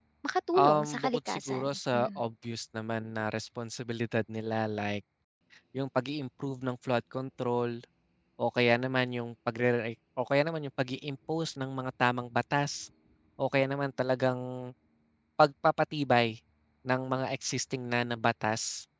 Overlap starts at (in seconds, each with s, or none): 0.5 s